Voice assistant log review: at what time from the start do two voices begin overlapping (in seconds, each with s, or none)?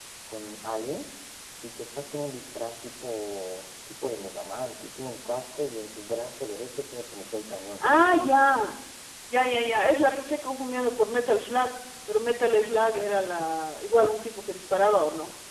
none